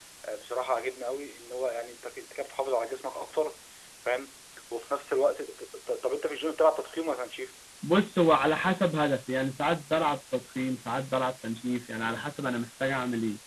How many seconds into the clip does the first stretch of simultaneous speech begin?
none

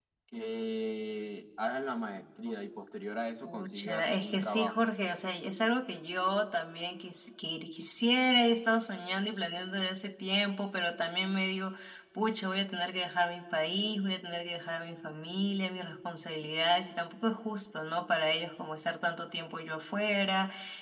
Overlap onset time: 3 s

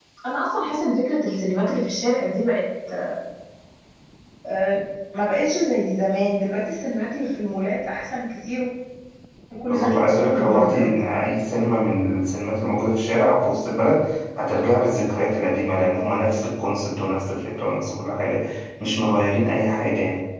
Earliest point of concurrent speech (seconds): 10 s

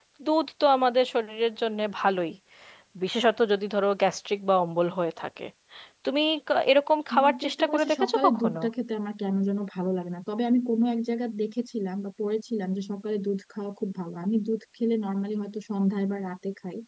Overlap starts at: 7 s

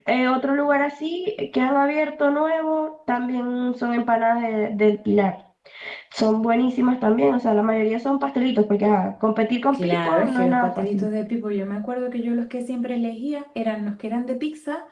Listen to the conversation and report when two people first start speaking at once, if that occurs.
10 s

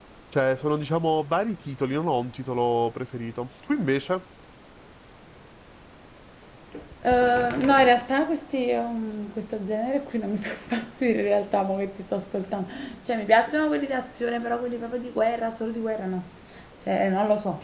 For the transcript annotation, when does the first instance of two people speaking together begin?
none

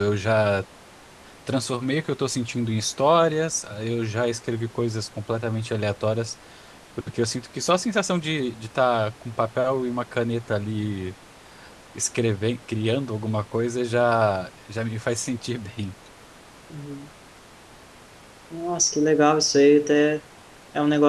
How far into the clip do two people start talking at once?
none

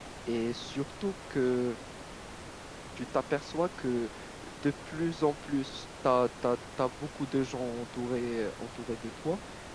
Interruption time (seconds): none

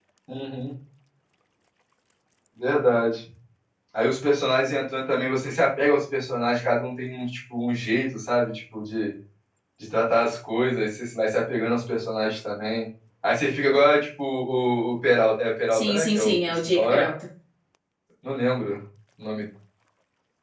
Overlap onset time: 16 s

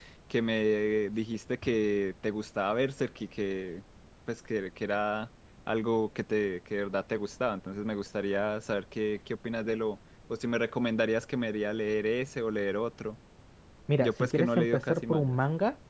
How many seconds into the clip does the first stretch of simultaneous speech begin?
14 s

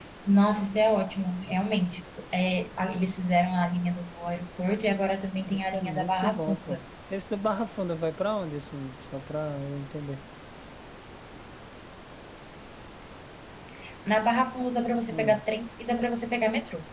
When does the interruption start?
5 s

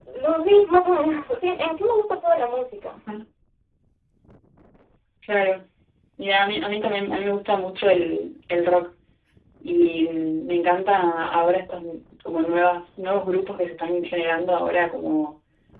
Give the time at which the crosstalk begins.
none

